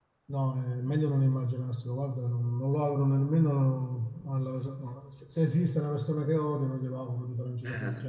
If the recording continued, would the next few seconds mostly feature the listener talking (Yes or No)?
Yes